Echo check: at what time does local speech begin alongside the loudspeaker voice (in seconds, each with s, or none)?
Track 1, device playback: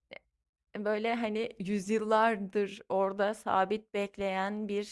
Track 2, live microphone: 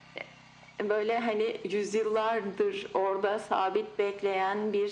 none